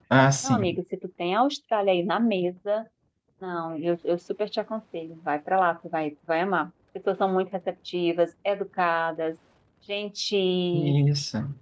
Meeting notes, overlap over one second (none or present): none